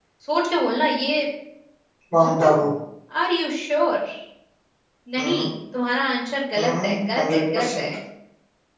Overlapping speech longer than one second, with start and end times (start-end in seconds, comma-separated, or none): 6.6-7.8